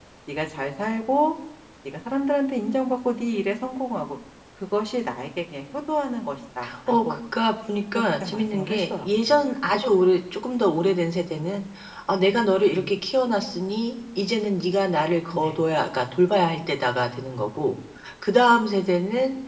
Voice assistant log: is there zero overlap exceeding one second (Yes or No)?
No